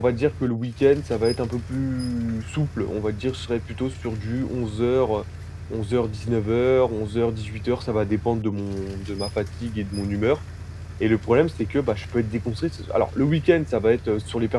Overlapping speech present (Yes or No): No